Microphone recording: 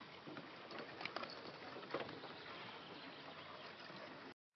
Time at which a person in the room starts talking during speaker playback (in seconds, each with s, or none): none